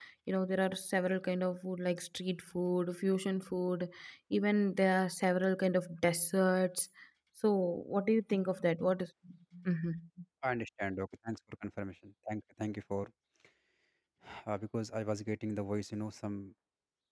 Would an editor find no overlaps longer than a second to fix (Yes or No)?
Yes